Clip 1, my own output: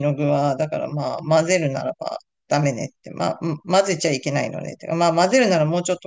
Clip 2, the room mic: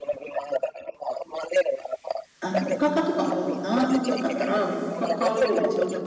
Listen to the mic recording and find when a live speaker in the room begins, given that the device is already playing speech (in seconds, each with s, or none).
2.4 s